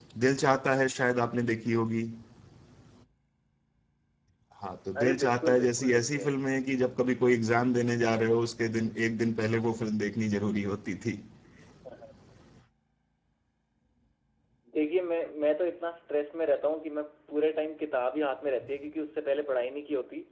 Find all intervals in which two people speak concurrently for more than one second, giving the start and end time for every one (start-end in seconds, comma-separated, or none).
5.0-6.3